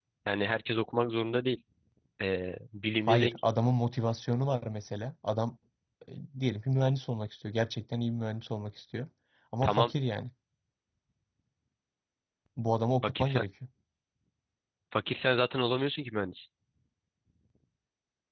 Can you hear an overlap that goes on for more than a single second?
No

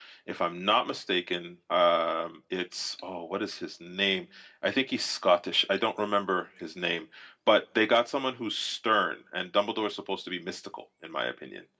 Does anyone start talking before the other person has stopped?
No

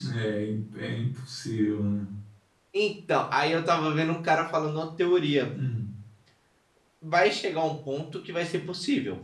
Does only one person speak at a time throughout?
Yes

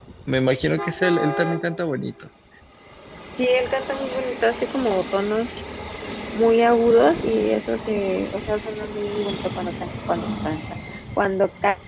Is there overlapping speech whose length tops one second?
No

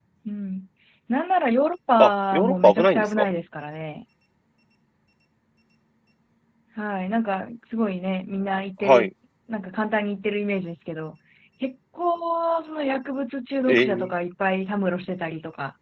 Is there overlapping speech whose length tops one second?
Yes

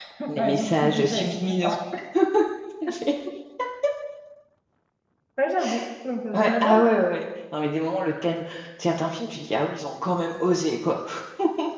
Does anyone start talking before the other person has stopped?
Yes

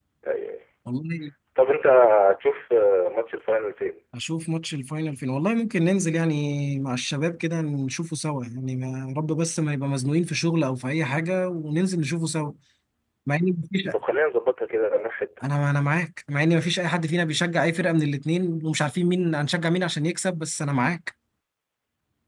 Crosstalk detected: No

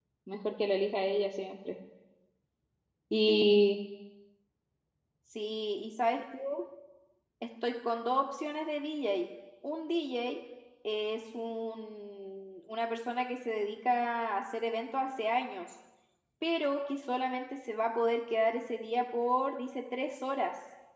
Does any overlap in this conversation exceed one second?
No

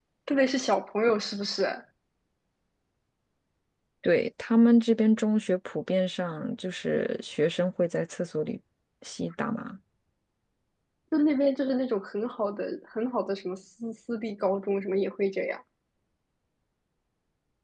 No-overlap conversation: Yes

